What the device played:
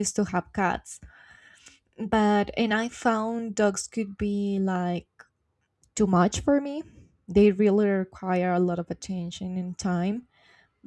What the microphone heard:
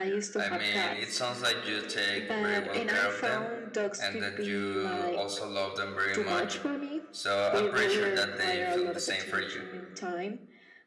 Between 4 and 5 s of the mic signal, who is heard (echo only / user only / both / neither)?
both